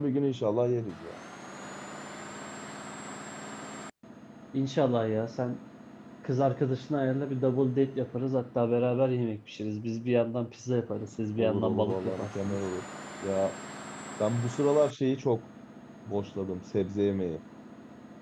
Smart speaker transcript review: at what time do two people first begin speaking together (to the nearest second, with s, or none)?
11 s